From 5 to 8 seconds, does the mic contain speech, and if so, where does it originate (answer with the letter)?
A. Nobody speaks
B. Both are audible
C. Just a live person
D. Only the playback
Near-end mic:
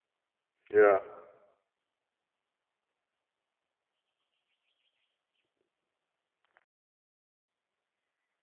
A